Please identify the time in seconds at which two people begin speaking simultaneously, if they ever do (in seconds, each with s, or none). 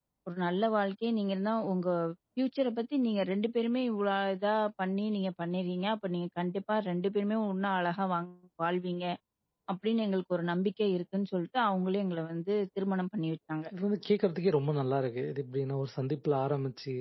none